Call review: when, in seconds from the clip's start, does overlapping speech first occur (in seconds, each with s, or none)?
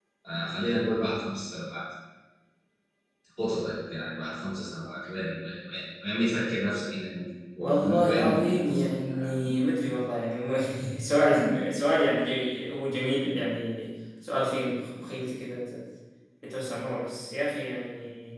7.6 s